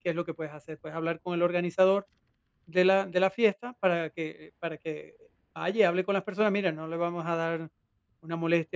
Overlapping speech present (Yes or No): No